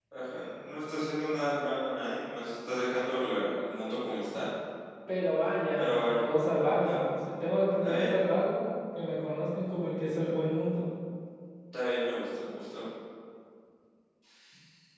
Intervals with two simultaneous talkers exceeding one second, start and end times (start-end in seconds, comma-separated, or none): none